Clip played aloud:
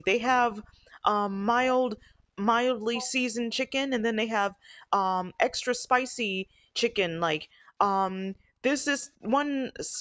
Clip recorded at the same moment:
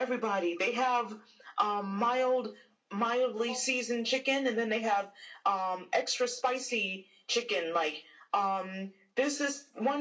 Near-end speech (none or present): none